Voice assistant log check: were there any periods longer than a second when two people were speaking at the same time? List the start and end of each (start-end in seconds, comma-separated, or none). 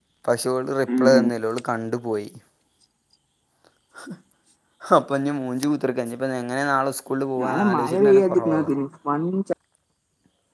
7.4-8.6